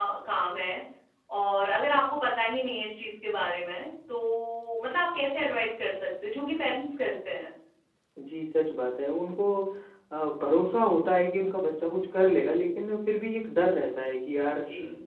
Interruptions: none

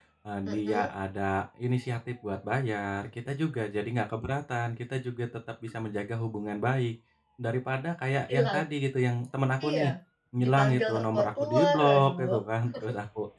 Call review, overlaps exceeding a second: present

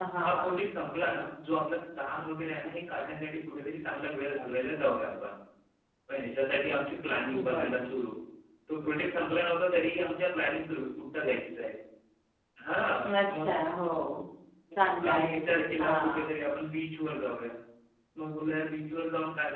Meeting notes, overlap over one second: present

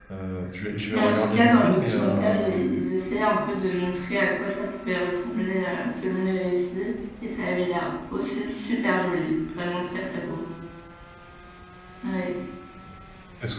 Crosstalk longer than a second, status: present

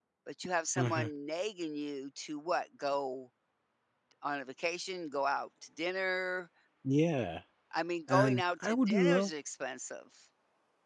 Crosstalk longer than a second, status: present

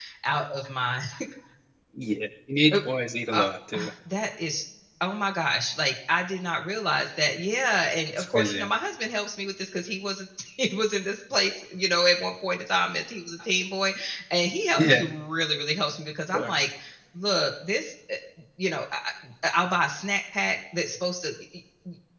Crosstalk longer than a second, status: none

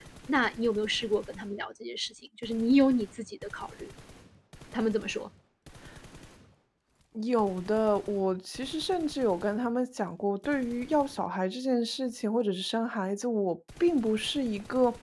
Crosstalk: none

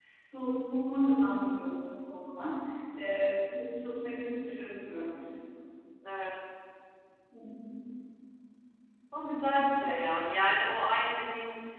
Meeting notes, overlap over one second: none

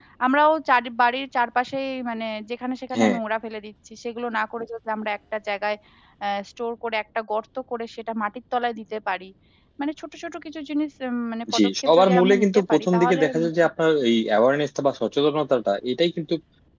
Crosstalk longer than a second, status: present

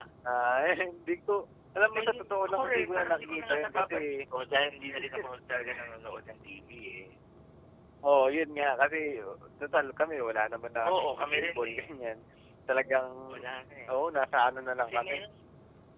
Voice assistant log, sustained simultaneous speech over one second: present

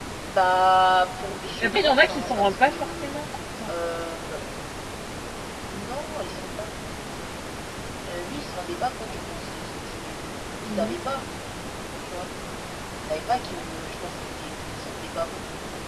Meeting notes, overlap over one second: present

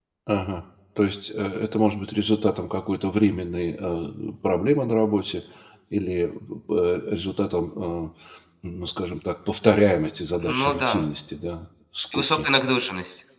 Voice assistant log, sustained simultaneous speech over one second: none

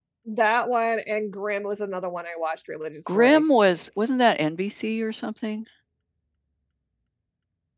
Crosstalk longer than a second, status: none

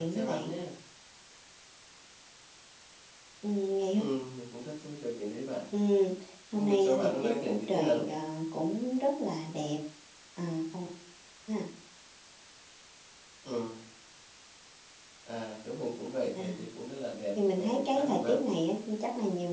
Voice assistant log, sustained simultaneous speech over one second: present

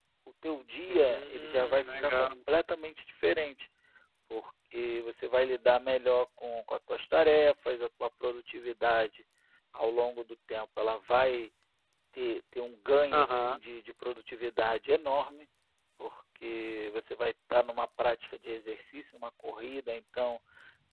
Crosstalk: present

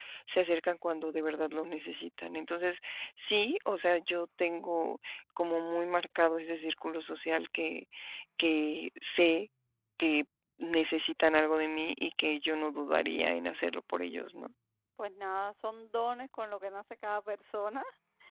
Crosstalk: none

